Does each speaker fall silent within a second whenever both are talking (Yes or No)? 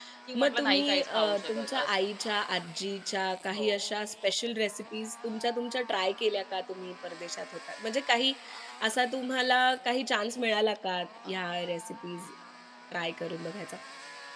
No